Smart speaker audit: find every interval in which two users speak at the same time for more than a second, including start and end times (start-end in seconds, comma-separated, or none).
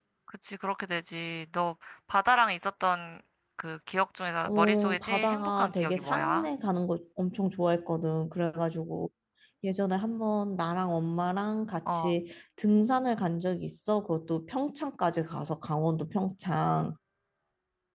4.5-6.5